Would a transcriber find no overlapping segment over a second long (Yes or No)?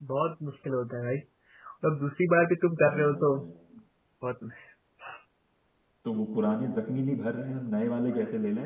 Yes